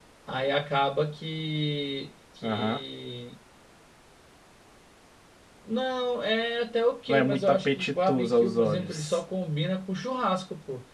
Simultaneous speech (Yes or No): Yes